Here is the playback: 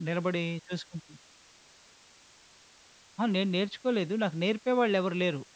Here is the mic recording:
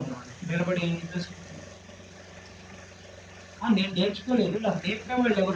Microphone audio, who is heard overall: echo only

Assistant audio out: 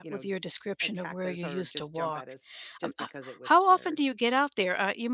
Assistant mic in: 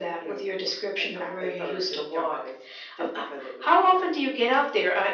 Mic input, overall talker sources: echo only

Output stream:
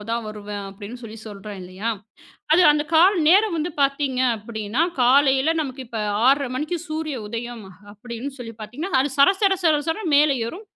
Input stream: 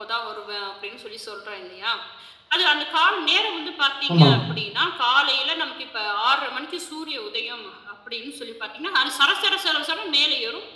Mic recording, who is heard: both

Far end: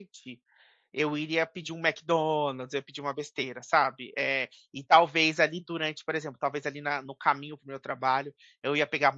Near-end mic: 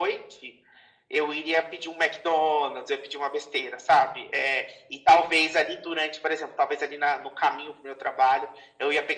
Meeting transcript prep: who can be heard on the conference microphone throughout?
echo only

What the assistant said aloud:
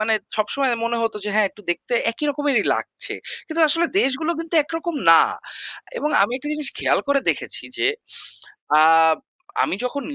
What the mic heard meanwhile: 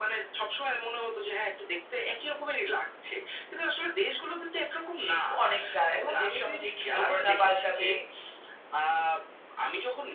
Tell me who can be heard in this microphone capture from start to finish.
both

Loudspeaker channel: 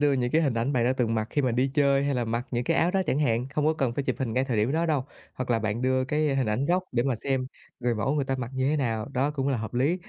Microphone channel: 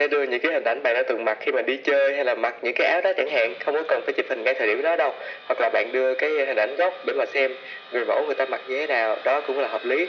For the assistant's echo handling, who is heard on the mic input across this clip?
echo only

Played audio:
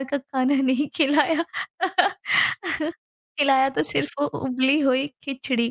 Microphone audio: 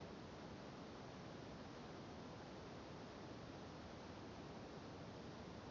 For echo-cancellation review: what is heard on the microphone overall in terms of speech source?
neither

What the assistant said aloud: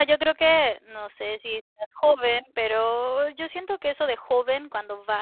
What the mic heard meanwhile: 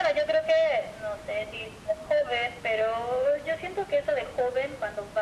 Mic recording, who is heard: echo only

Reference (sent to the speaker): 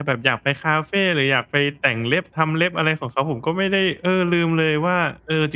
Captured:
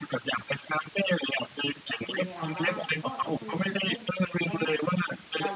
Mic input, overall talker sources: both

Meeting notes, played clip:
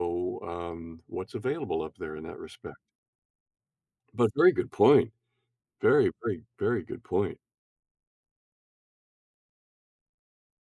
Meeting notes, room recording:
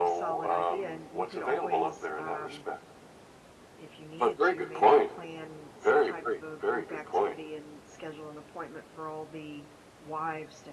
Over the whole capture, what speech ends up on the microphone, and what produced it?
both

